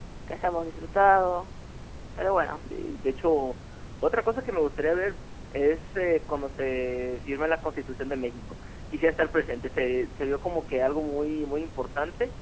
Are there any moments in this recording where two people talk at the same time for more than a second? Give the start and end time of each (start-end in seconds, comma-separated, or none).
none